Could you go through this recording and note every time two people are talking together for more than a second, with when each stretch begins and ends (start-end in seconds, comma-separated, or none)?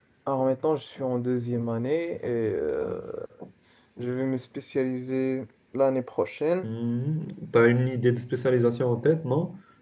none